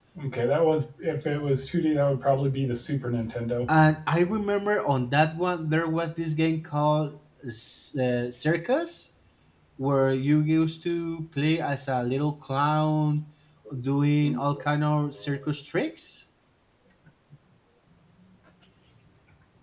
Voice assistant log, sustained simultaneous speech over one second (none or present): none